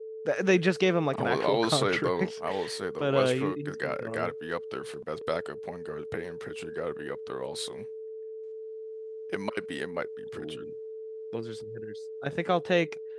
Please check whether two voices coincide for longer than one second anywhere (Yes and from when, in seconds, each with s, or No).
Yes, from 1.1 s